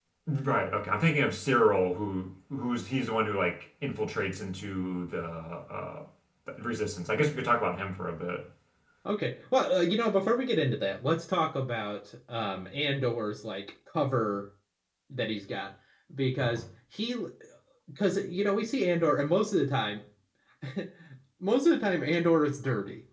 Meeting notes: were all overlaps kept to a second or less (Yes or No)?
Yes